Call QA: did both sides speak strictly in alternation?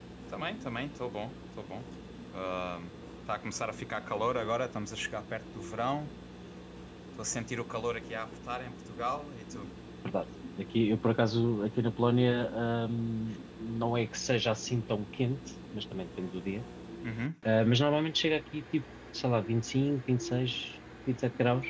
Yes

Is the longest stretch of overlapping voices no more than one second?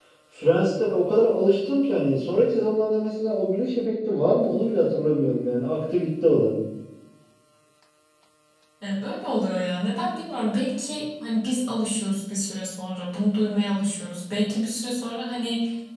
Yes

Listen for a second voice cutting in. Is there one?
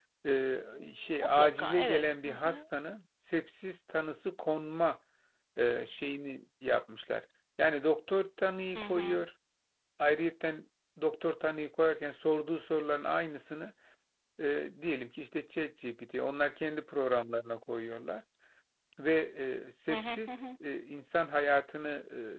Yes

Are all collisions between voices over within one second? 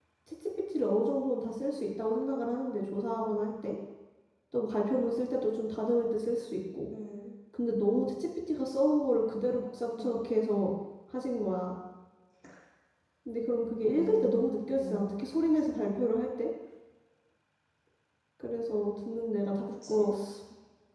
No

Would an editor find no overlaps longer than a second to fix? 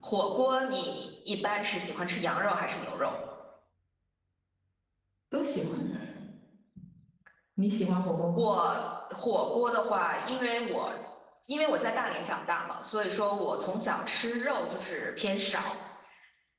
Yes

